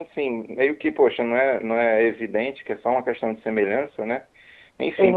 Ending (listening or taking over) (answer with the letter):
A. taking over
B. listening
B